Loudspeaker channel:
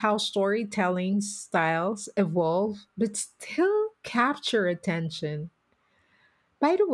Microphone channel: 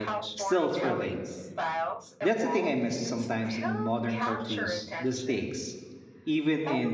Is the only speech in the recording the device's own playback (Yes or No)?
No